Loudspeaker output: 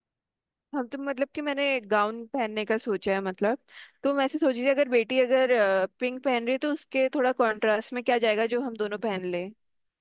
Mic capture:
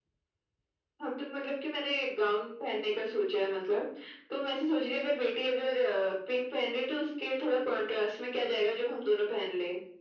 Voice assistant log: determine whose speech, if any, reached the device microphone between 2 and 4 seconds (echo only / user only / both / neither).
echo only